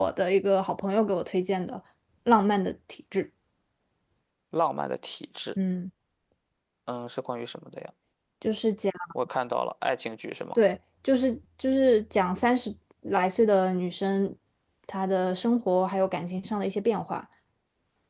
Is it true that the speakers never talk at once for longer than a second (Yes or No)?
Yes